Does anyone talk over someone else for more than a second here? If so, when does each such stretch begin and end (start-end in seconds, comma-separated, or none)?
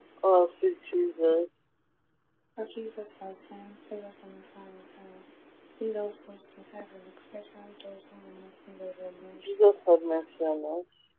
none